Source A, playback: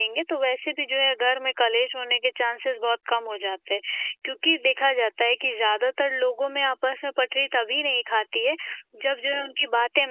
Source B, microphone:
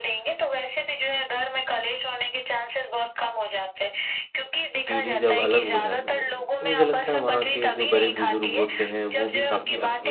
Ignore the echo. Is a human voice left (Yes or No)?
Yes